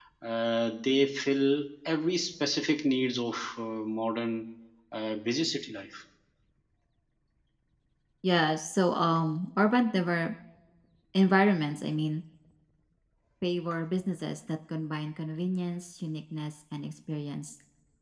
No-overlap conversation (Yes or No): Yes